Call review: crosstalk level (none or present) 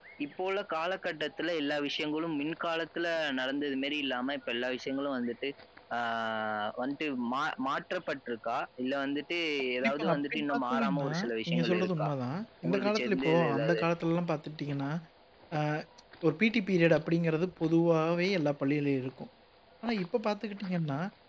present